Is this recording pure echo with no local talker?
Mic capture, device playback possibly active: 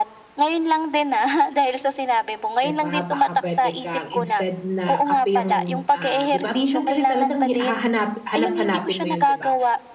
No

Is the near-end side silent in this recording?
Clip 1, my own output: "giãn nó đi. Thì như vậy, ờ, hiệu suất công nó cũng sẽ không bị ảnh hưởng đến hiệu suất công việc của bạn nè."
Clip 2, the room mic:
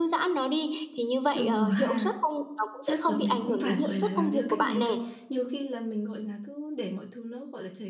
No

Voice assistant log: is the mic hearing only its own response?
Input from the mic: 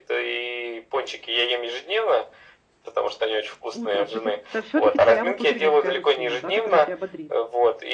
No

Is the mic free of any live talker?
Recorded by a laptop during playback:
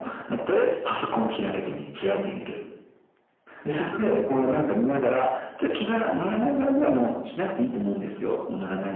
Yes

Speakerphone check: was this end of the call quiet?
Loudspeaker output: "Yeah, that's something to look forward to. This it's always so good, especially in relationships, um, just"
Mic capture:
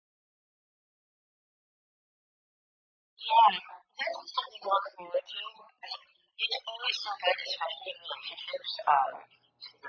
Yes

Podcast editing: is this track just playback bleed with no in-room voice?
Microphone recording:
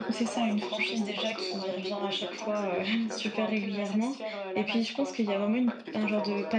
No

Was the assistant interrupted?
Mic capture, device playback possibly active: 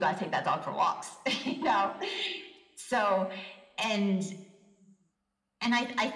No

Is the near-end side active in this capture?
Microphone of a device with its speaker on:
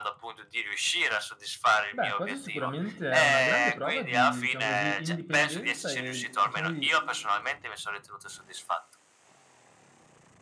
Yes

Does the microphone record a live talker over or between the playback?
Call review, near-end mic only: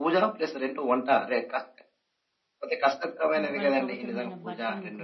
Yes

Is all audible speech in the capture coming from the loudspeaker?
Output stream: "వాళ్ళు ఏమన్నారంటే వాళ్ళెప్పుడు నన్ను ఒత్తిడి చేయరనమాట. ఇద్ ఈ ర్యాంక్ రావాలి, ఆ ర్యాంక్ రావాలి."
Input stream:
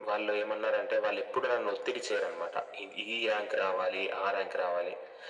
Yes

